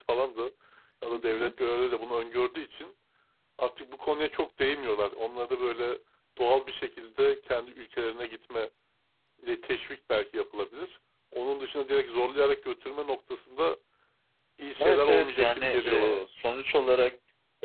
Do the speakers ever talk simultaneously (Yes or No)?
Yes